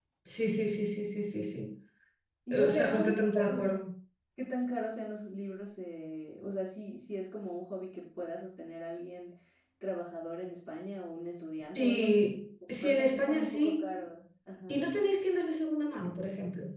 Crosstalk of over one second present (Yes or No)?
Yes